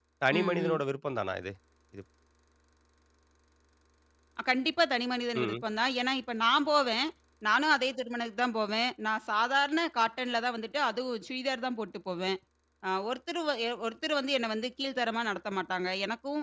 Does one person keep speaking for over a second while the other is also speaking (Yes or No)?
No